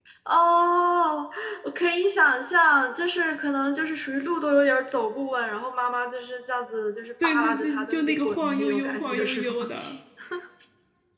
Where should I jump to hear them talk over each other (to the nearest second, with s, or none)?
7 s